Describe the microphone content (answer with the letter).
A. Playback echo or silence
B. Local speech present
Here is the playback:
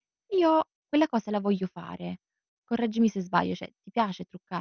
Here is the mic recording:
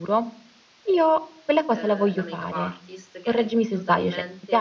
B